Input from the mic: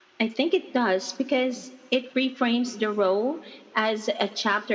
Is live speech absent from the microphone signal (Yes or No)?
Yes